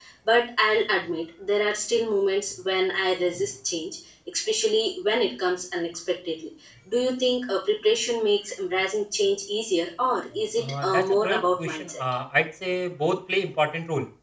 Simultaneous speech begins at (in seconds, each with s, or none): 10.6 s